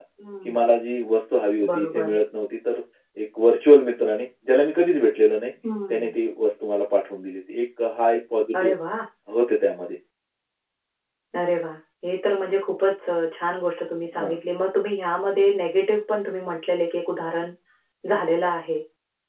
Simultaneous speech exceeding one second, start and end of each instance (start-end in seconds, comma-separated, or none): none